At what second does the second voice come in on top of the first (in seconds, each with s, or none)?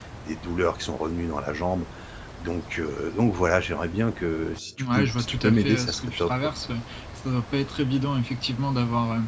4.8 s